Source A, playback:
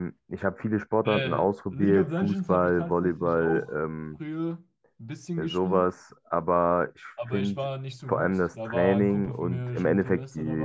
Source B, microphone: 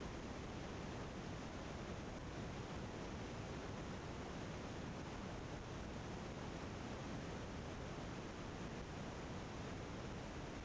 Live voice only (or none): none